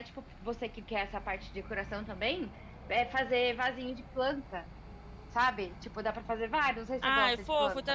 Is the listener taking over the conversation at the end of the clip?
Yes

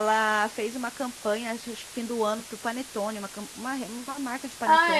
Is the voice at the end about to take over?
Yes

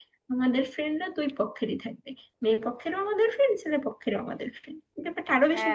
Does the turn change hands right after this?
Yes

